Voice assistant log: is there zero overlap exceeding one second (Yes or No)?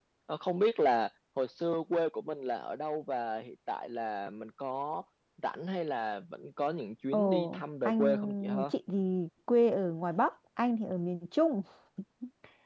No